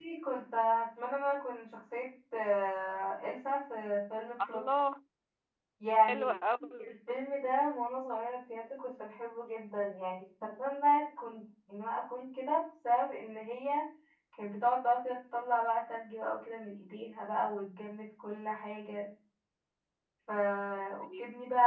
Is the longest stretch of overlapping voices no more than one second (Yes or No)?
Yes